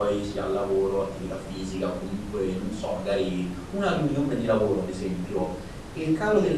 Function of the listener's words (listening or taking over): listening